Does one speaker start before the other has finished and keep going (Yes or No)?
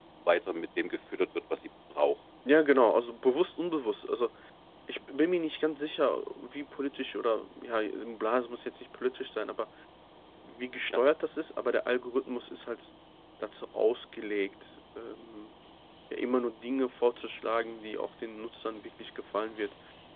No